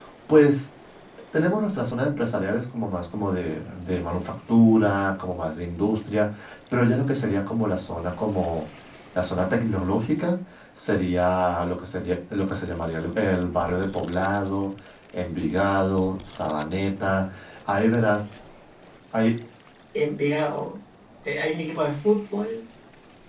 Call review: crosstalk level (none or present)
none